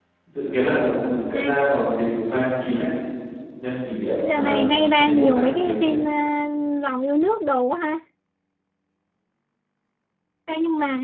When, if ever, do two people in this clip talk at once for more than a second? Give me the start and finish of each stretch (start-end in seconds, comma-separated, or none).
4.2-5.9